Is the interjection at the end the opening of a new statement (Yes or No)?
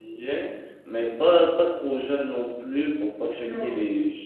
No